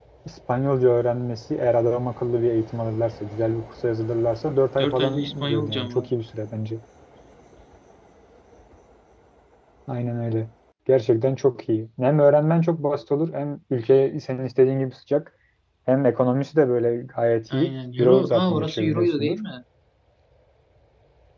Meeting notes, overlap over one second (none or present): present